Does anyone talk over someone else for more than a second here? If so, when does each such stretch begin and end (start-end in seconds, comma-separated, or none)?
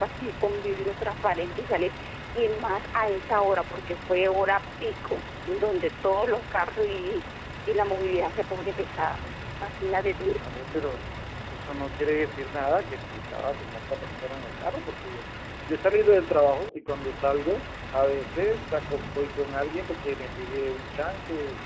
none